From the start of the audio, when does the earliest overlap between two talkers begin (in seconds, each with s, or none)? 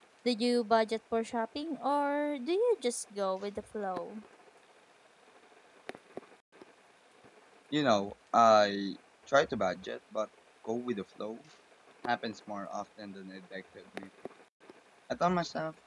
none